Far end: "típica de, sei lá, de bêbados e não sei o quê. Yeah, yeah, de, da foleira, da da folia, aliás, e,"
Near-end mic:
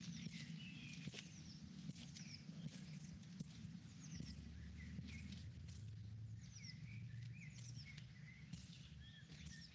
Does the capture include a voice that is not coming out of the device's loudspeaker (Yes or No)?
No